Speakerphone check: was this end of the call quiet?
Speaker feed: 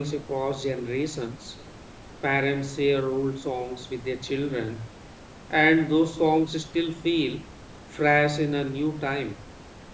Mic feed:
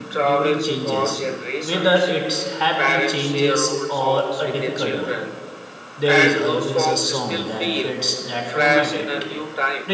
No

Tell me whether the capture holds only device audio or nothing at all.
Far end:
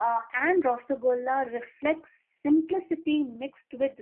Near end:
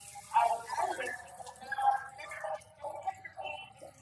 Yes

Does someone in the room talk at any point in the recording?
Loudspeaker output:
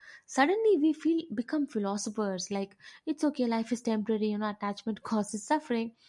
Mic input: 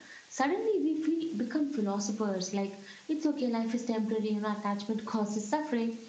No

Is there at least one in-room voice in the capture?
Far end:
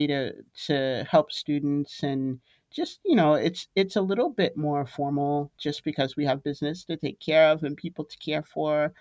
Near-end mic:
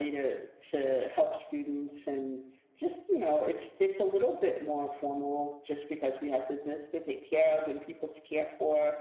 No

